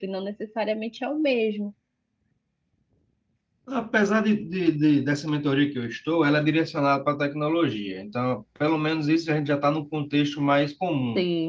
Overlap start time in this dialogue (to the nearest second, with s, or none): none